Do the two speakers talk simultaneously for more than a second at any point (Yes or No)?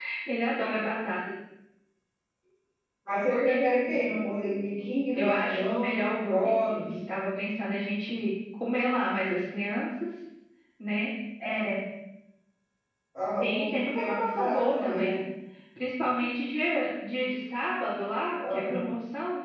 Yes